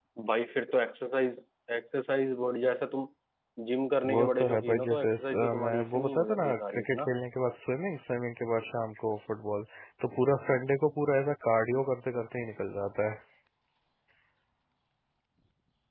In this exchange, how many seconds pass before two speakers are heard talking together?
4.1 s

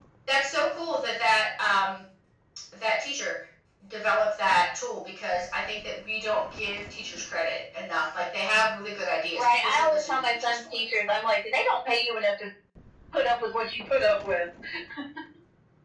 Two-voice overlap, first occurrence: 9.3 s

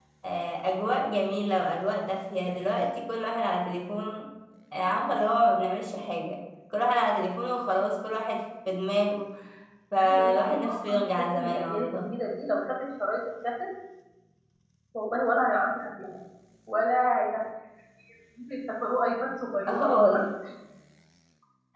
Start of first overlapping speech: 10.0 s

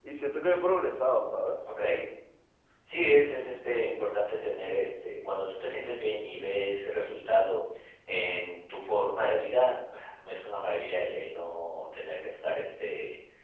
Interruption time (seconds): none

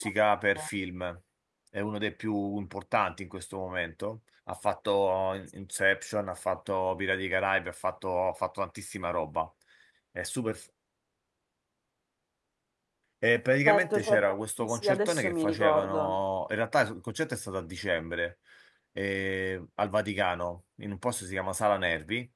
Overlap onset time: 13.6 s

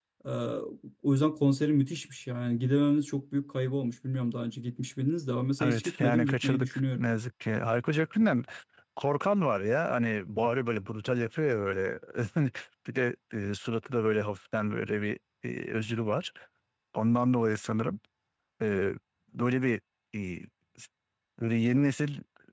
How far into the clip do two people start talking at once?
5.6 s

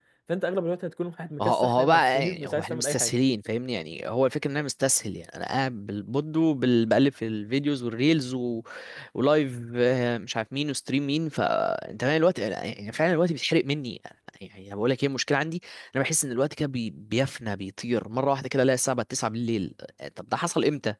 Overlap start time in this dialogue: 1.4 s

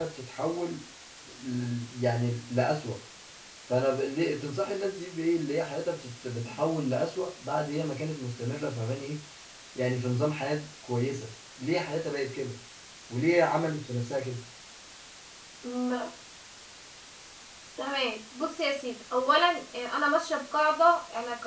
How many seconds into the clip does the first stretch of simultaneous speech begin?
none

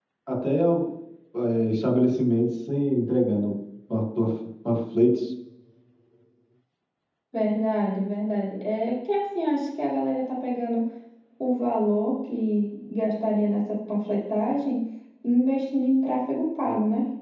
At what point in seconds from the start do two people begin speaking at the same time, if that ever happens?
none

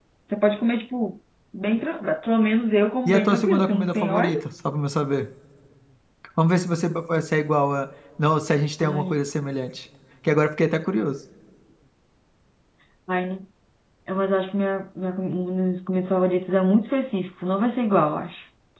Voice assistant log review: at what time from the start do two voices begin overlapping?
3.1 s

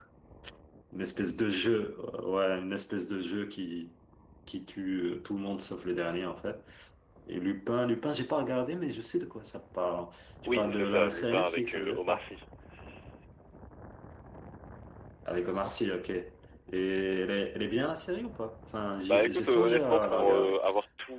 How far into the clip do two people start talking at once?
10.5 s

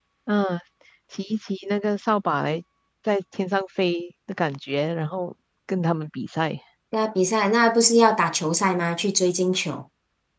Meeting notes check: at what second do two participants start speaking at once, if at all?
none

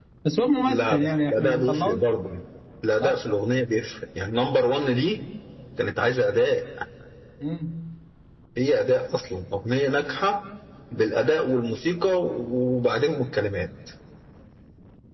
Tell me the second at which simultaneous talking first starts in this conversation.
0.6 s

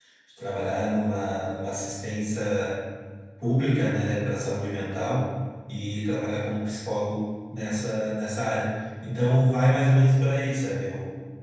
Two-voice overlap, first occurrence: none

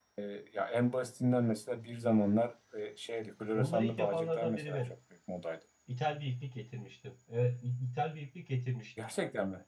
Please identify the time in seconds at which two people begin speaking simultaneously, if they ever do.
3.5 s

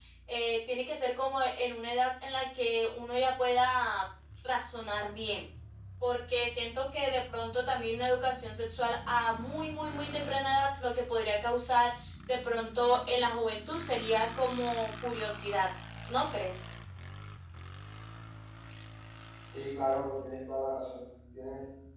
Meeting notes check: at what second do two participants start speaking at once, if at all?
none

